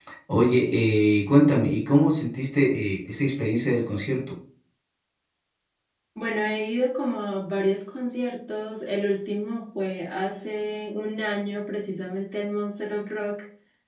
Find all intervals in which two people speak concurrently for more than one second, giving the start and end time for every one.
none

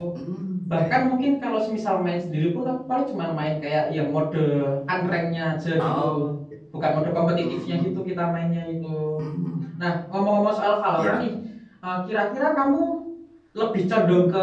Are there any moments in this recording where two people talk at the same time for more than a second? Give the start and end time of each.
none

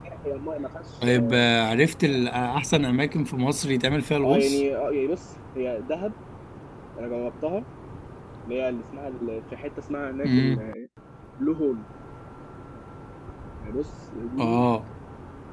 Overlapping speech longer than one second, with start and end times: none

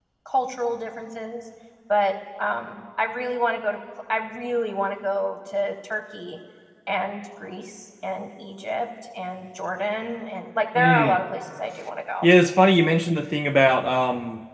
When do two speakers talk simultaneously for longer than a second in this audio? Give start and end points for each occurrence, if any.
none

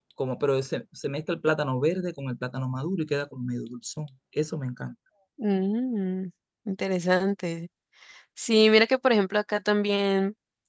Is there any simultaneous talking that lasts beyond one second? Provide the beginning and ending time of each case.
none

